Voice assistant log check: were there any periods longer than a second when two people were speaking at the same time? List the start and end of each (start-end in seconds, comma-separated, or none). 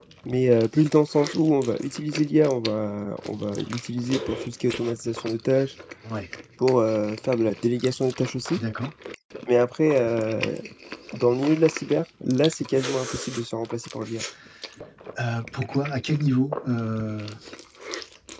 none